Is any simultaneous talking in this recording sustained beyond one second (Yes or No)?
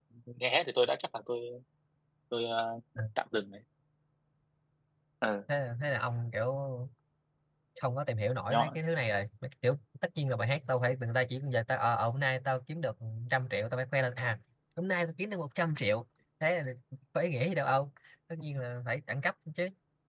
No